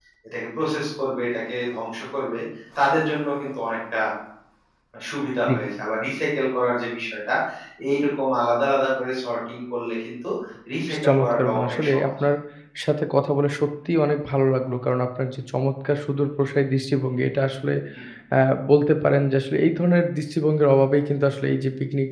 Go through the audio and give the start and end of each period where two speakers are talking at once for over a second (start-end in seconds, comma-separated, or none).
10.9-12.1